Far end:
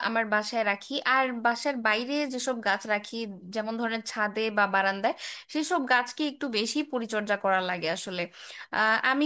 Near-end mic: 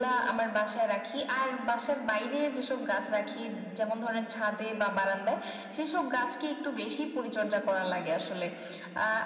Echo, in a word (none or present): present